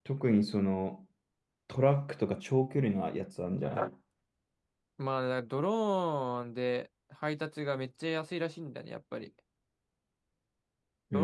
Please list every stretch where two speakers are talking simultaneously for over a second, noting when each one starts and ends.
none

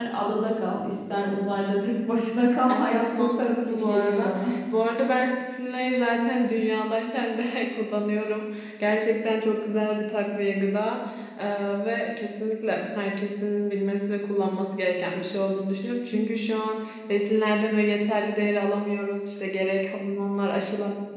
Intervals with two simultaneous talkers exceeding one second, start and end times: 2.7-4.3

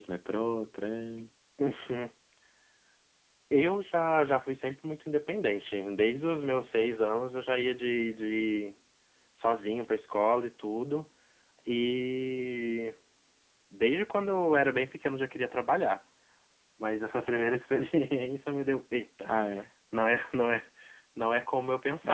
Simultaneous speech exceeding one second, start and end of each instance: none

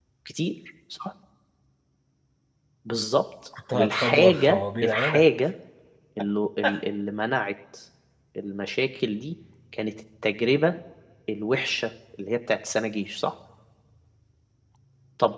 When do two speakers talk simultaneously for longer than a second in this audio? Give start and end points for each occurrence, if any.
3.7-5.2

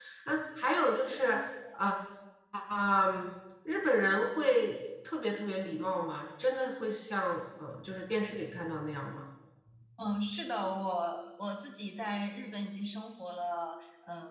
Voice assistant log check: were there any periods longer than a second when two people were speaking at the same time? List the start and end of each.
none

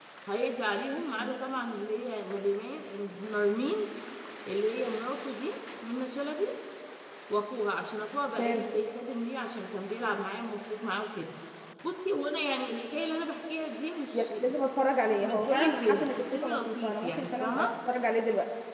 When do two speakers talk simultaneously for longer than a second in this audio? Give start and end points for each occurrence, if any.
15.2-17.7

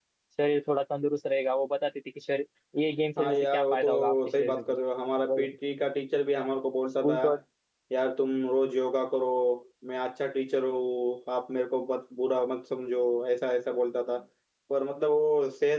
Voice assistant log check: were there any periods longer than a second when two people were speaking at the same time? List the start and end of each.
3.2-4.8

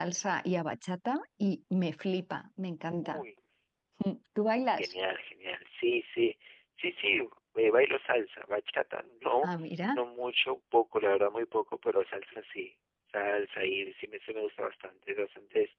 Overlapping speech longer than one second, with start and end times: none

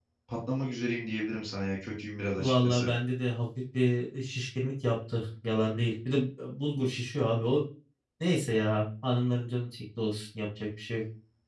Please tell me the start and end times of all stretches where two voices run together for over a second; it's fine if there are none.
none

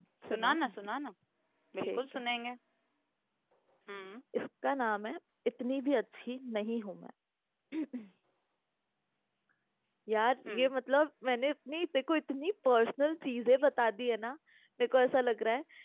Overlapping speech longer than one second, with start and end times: none

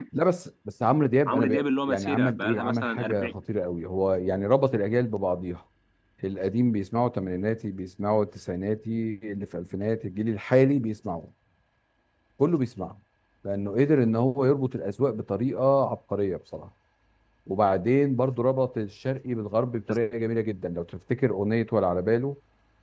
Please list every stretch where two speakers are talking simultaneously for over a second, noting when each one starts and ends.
1.3-3.3

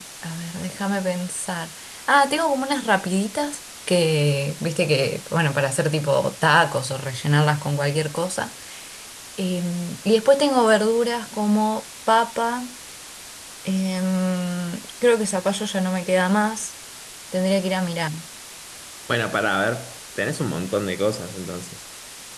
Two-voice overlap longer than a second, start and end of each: none

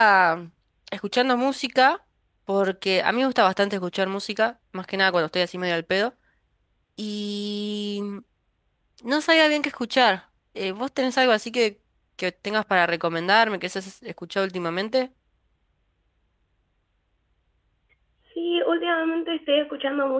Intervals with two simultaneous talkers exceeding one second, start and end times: none

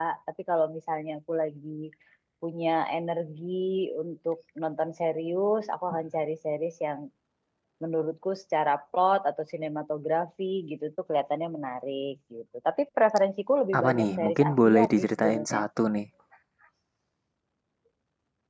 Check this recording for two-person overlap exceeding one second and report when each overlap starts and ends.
13.8-15.6

